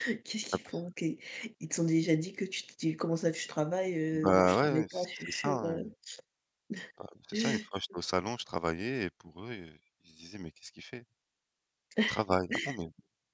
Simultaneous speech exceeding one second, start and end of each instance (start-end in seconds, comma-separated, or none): 4.1-5.8